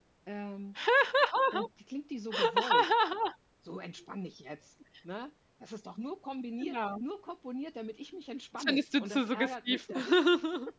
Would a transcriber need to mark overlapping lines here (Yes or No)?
Yes